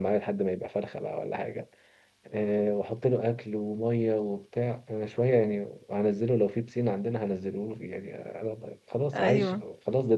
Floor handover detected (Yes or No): No